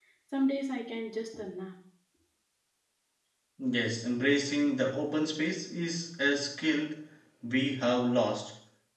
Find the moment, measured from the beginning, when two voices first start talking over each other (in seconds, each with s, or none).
none